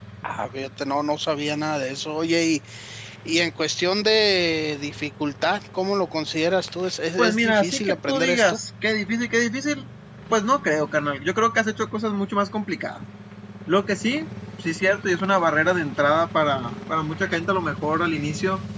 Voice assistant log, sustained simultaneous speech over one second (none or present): present